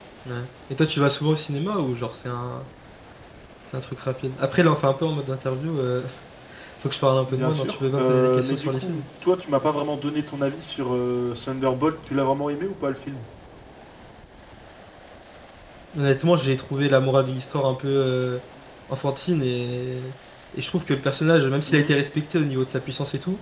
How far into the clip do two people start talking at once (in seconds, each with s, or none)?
7.3 s